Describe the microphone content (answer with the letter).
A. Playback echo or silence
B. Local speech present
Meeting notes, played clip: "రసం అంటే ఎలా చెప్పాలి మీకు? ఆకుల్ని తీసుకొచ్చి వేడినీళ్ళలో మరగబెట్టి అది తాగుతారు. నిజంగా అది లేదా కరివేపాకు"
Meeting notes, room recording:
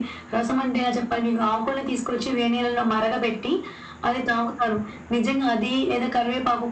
A